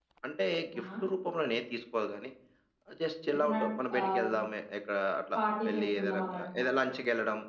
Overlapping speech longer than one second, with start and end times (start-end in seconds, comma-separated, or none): 5.4-6.6